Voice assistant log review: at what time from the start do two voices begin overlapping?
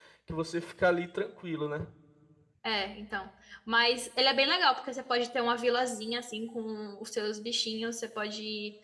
none

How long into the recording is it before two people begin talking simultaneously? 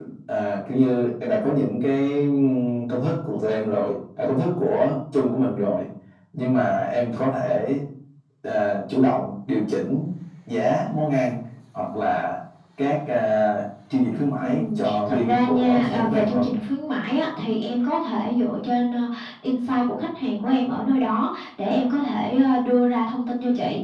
14 s

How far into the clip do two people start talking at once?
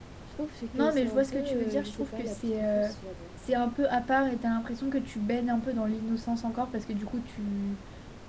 1 s

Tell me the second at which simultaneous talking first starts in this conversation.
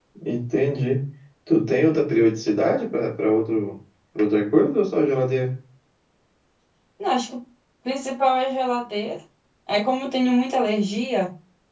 none

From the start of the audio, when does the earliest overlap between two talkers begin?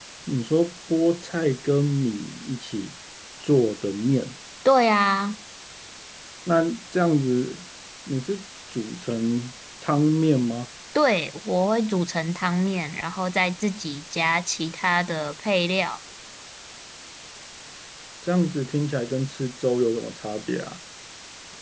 none

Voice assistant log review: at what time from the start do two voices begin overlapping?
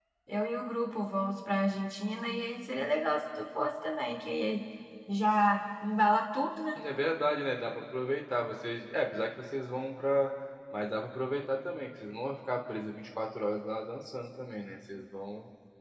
none

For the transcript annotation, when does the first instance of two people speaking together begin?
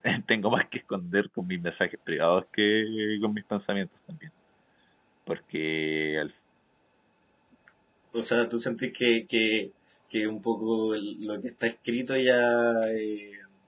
none

